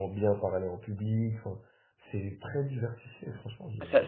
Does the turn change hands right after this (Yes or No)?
Yes